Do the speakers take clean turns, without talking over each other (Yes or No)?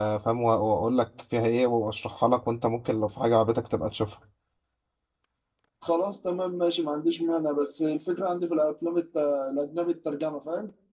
Yes